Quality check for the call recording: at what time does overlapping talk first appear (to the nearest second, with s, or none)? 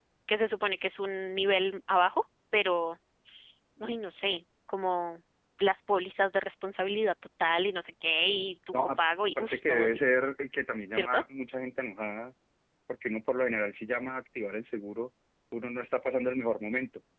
9 s